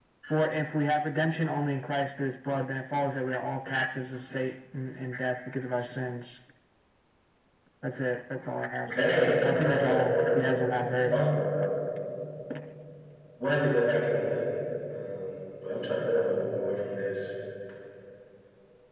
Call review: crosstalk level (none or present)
present